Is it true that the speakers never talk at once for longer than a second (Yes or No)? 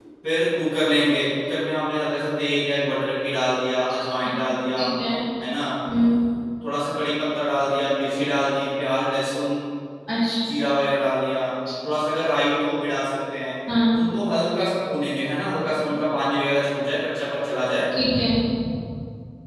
Yes